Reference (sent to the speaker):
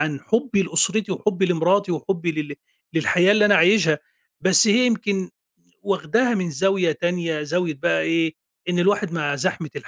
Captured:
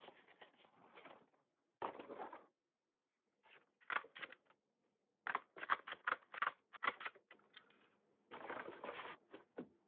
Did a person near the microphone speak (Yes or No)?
No